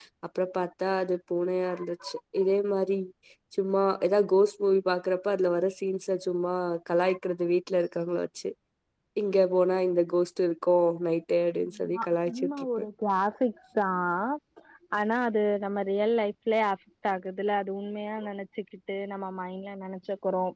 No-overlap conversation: No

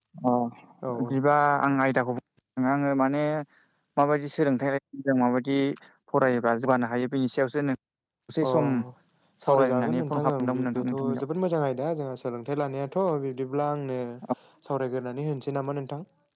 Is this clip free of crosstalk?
No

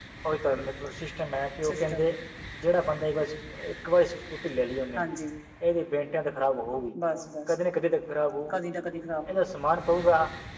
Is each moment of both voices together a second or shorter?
Yes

